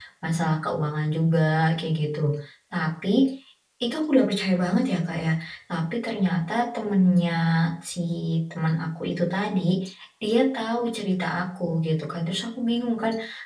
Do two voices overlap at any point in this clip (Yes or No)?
No